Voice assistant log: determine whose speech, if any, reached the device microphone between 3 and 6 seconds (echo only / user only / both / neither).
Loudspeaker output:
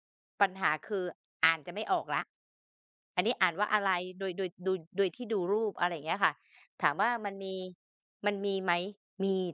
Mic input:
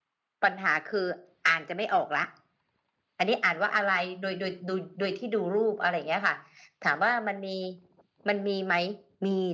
echo only